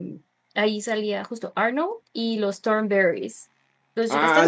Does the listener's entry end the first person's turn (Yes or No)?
Yes